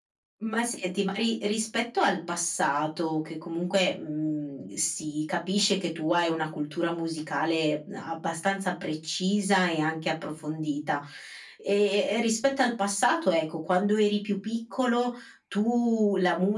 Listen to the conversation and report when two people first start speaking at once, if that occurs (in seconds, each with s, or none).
none